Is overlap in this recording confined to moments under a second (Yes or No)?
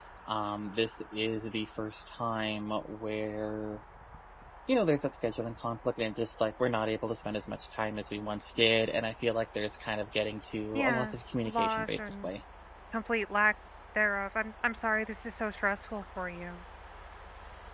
No